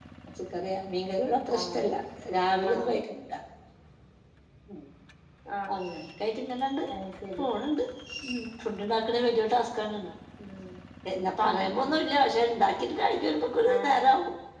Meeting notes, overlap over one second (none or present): none